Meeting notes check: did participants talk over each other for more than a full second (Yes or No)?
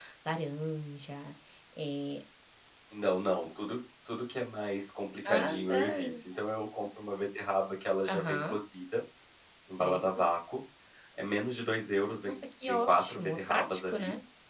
Yes